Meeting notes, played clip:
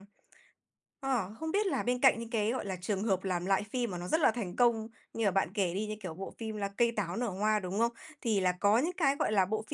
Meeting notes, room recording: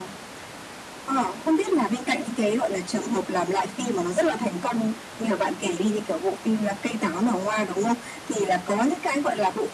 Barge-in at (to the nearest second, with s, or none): none